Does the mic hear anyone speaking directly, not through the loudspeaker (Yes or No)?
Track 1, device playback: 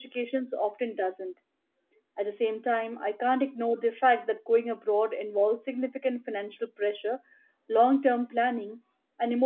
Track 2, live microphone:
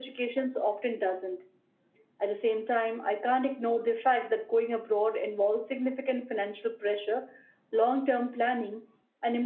No